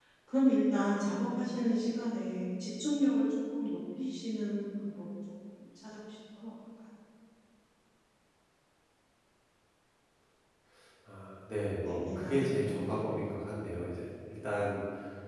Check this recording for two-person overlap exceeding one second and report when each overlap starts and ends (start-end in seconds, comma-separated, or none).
11.8-13.1